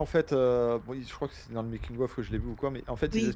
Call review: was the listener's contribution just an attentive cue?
Yes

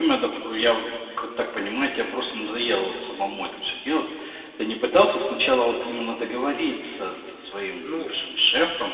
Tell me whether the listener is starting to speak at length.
No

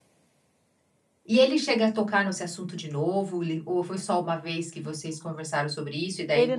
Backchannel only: No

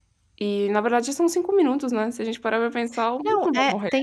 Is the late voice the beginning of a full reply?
Yes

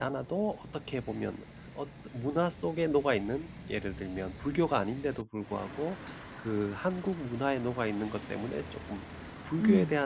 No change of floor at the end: Yes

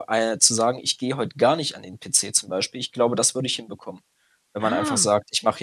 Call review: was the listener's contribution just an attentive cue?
Yes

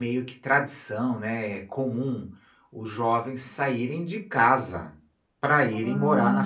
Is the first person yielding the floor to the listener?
Yes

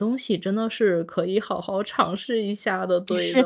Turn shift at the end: Yes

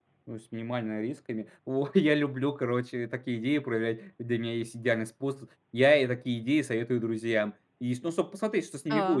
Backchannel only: Yes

